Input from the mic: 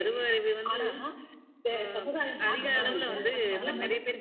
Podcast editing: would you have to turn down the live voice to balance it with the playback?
No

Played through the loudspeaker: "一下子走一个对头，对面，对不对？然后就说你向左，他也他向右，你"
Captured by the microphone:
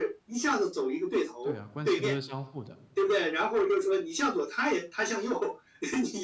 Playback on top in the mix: Yes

